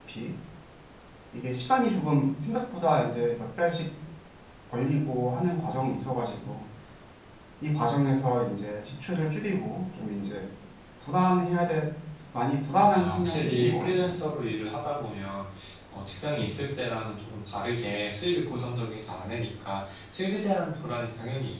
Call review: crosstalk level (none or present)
present